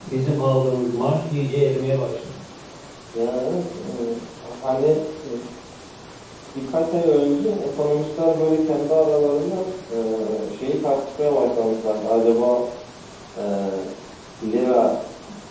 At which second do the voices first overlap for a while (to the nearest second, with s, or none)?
none